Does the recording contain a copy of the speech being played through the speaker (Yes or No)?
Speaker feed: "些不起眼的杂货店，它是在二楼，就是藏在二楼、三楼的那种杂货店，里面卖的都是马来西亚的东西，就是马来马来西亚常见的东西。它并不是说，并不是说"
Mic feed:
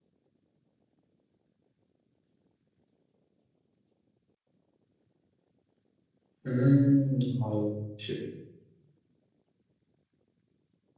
No